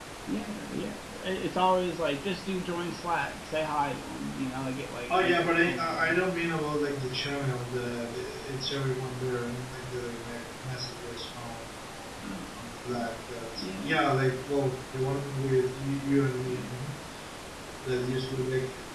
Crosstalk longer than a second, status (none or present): present